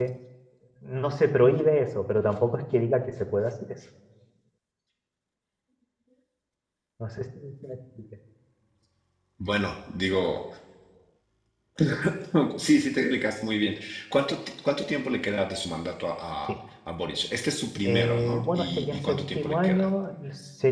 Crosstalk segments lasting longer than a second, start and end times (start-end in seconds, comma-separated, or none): 17.8-19.9